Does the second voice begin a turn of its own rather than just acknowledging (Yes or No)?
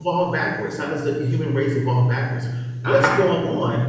No